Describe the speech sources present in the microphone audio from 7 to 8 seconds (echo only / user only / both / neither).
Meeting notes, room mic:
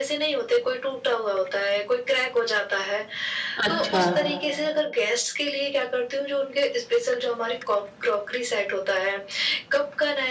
echo only